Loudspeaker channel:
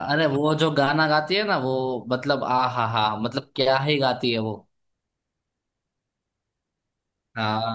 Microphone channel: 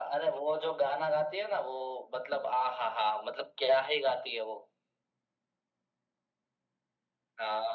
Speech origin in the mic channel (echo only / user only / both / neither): echo only